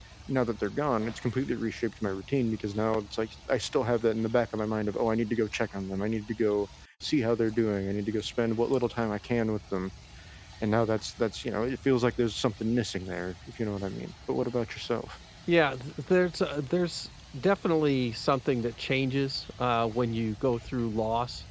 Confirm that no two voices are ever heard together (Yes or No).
Yes